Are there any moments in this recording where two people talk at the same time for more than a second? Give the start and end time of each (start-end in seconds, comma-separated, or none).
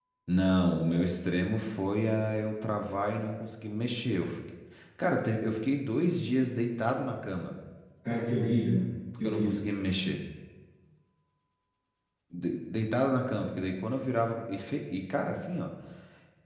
none